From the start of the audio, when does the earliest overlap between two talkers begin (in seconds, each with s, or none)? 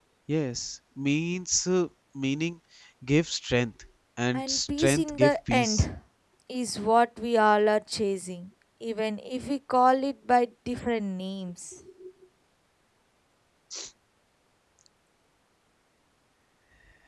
4.3 s